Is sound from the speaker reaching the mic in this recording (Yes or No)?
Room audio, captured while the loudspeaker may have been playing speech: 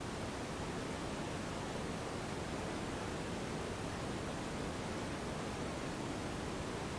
No